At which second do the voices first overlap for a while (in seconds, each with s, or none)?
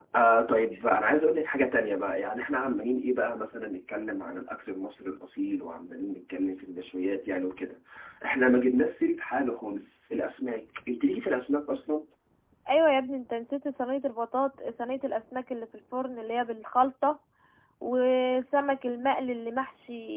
none